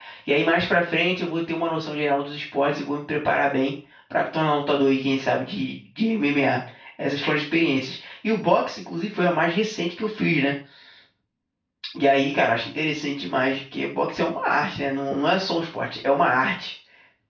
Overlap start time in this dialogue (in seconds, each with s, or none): none